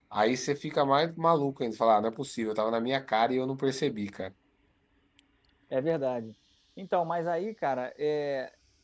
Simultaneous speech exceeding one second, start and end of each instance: none

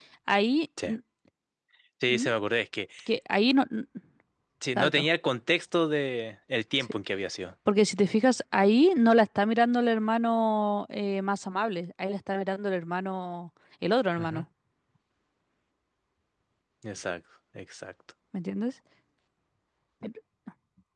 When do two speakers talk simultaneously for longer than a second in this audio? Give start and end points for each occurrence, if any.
none

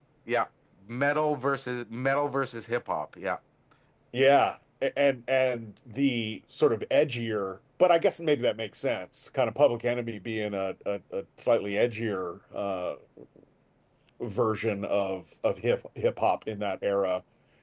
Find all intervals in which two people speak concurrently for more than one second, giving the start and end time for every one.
none

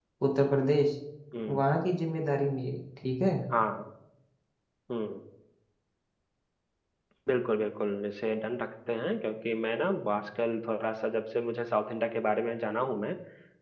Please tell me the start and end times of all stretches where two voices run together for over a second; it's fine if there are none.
none

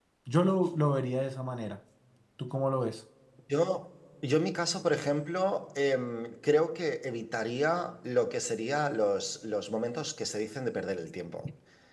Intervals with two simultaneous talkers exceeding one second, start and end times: none

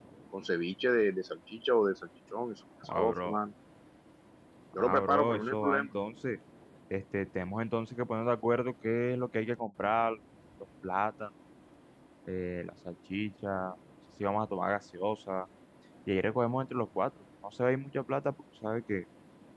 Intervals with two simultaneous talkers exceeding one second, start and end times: 4.7-6.0

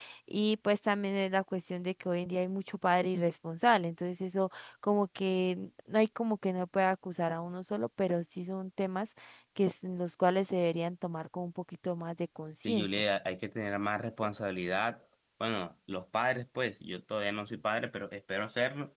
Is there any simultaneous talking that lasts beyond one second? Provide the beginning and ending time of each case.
none

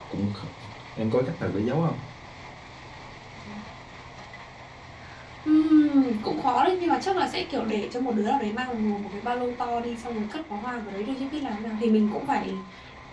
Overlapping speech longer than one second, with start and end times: none

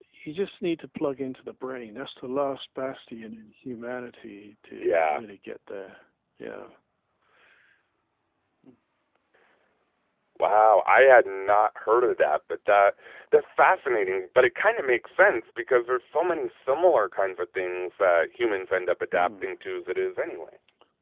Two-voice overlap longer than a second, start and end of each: none

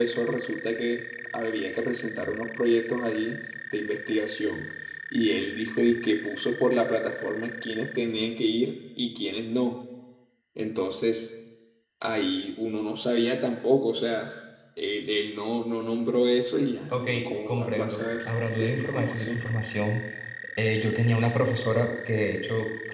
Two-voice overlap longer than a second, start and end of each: 16.9-19.4

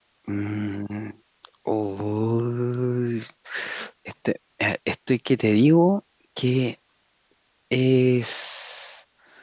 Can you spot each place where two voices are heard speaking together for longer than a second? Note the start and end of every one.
none

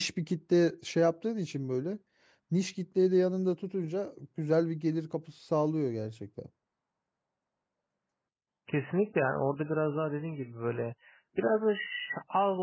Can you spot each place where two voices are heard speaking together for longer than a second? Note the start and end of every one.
none

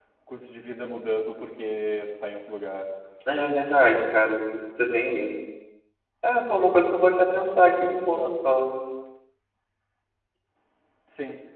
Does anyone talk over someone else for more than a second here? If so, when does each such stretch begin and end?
none

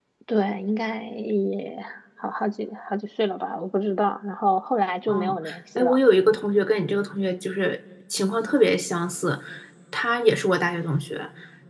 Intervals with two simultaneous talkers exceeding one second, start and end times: none

